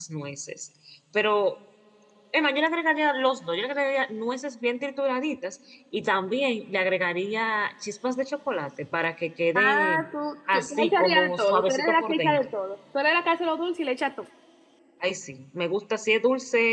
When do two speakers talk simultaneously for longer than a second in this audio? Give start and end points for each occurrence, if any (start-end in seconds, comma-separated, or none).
10.5-12.4